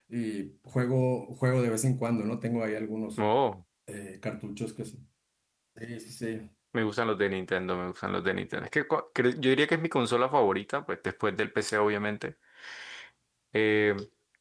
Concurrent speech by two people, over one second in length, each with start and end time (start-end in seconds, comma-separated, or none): none